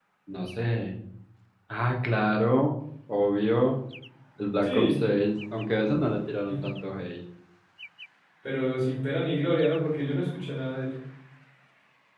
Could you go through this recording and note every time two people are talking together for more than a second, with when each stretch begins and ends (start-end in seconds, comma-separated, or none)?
none